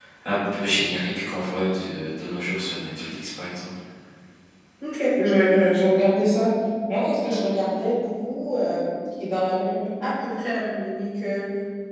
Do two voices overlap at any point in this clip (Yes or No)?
No